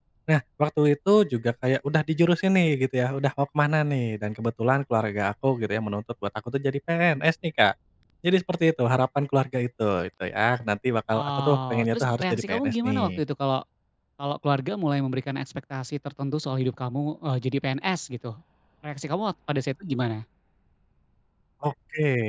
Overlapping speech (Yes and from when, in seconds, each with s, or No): Yes, from 11.1 s